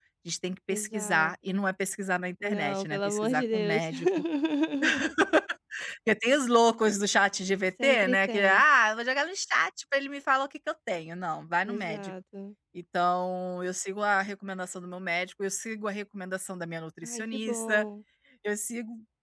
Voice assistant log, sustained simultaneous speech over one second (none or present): present